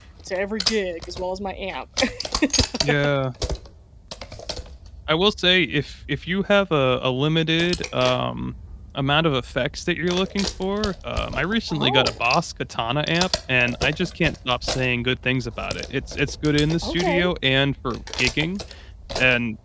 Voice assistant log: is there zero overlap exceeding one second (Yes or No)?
Yes